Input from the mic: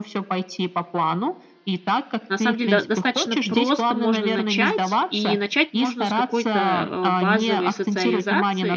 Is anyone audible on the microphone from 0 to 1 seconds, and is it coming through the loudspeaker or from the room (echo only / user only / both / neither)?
echo only